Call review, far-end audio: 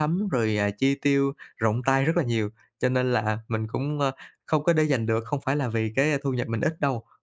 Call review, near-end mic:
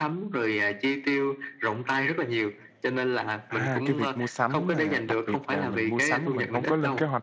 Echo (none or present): present